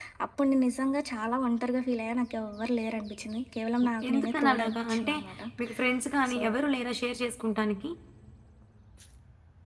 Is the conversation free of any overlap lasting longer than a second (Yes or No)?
No